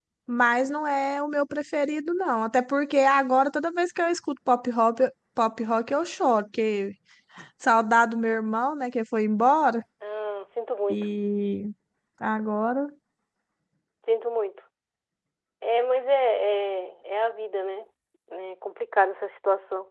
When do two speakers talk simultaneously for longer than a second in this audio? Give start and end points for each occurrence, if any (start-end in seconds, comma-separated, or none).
none